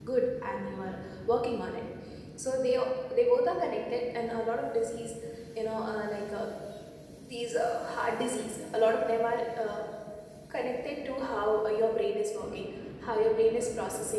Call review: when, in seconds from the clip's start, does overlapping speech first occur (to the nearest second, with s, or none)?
none